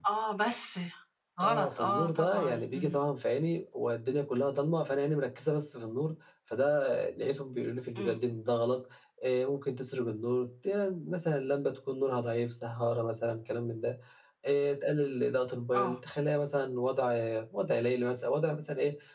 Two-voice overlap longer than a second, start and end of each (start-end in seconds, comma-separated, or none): 1.4-3.0